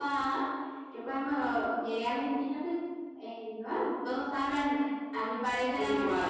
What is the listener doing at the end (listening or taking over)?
listening